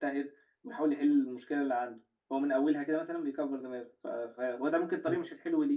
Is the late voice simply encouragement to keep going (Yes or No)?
Yes